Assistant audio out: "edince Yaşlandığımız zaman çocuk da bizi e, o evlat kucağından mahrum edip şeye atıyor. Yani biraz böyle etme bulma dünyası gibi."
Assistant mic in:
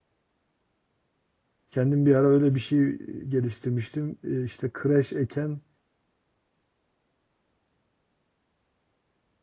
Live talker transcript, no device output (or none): kendim bir ara öyle bir şey geliştirmiştim. E, işte kreş eken